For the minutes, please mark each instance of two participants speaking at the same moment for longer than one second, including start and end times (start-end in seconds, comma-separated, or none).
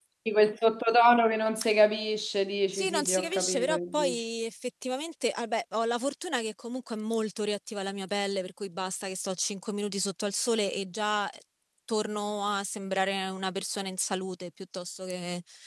2.7-4.2